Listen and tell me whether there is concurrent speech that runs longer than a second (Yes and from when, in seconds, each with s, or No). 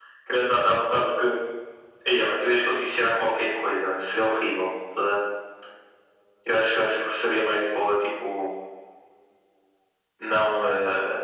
No